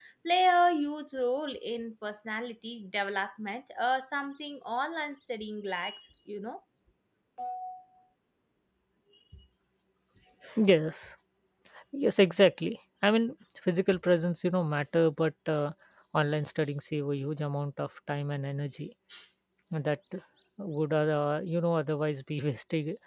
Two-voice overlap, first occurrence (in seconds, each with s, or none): none